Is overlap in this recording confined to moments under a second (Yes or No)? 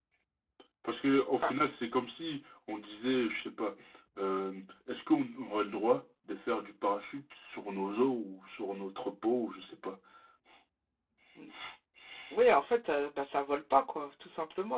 Yes